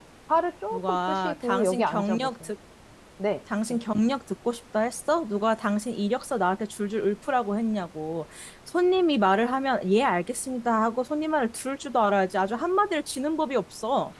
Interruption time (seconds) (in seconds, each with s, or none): 0.7 s